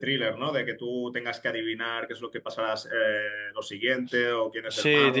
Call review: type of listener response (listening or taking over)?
taking over